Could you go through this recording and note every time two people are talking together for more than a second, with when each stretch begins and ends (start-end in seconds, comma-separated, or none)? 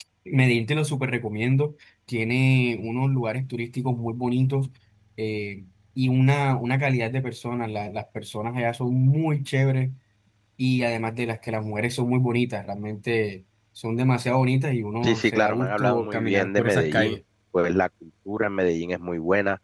15.0-17.2